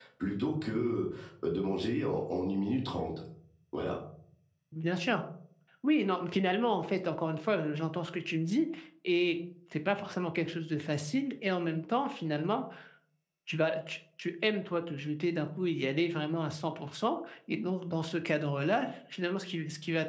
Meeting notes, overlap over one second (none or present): none